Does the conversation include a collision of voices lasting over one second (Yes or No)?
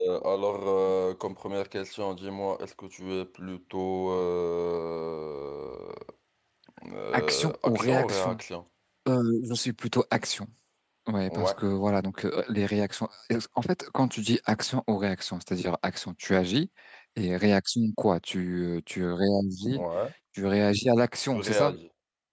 Yes